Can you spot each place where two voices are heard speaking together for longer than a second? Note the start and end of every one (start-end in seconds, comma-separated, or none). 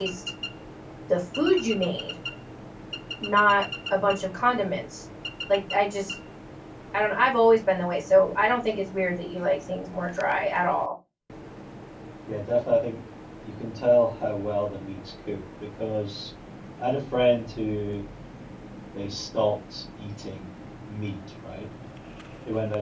none